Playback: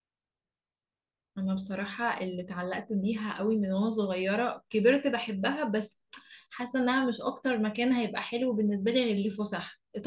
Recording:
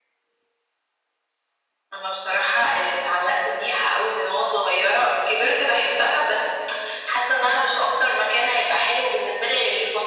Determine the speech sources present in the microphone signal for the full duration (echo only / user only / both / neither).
echo only